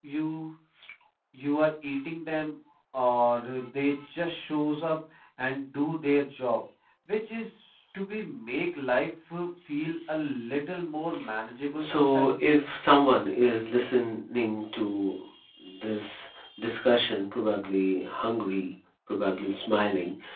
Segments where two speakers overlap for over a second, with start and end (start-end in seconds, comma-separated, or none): none